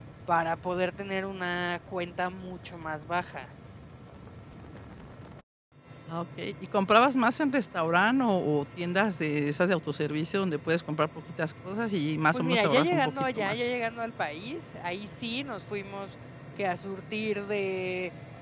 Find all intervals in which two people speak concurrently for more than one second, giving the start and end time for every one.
12.3-13.6

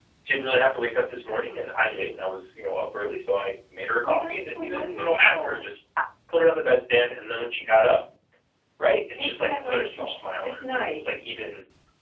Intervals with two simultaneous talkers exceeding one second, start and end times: 4.0-5.6, 9.2-11.2

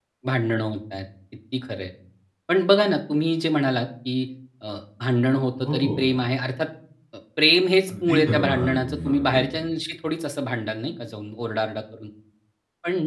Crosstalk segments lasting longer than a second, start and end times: 7.9-9.5

